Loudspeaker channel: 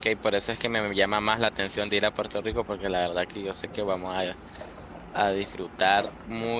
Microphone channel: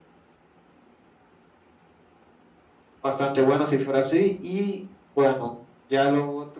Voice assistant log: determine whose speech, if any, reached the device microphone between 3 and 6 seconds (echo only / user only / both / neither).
user only